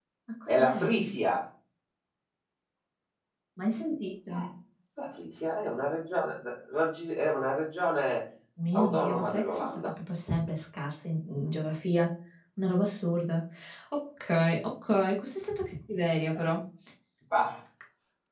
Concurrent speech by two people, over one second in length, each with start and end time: 8.7-9.9

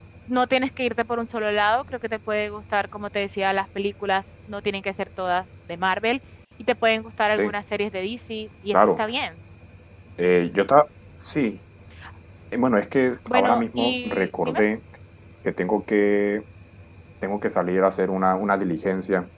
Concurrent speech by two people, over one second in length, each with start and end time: 13.3-14.6

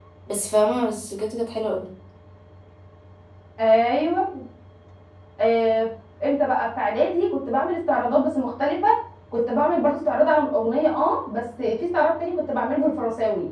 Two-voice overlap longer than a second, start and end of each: none

